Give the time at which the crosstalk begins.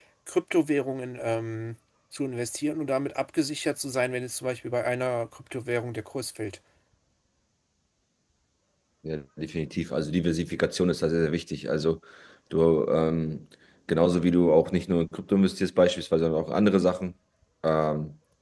none

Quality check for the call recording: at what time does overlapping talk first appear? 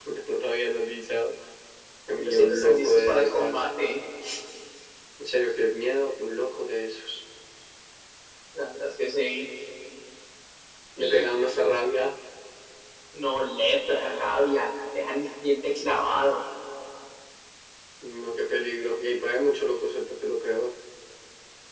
2.2 s

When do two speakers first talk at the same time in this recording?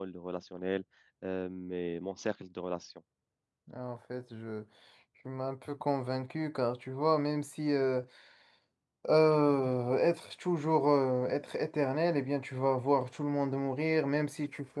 none

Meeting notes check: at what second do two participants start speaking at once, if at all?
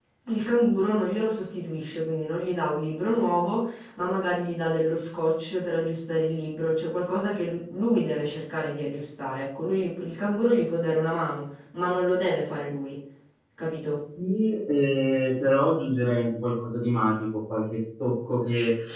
none

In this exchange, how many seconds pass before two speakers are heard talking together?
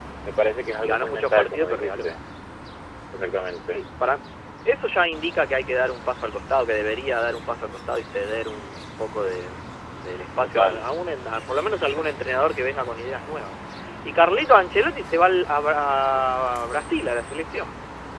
0.8 s

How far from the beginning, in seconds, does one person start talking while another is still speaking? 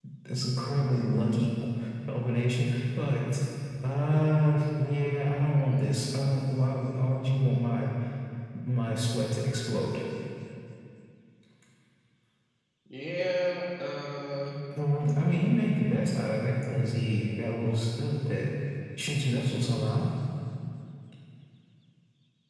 none

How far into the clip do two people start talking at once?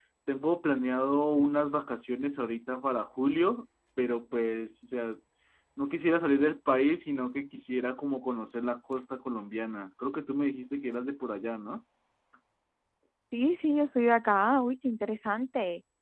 none

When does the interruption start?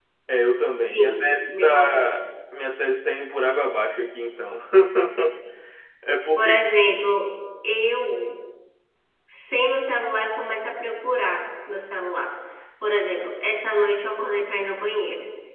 0.9 s

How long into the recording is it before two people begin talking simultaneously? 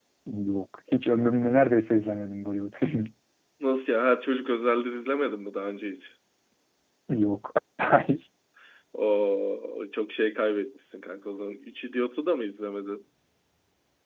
none

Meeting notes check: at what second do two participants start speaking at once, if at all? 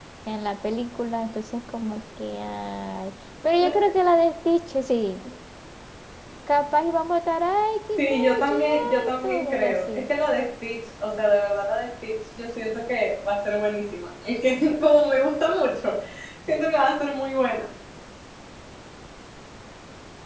8.0 s

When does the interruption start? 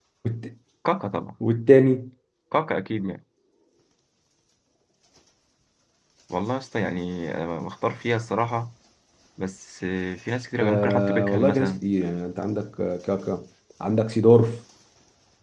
10.6 s

